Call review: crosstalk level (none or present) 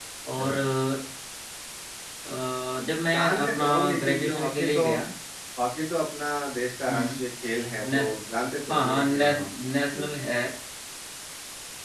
present